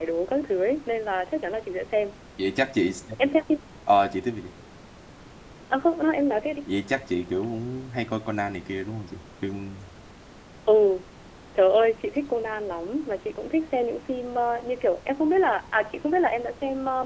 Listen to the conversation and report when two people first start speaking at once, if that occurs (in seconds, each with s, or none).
none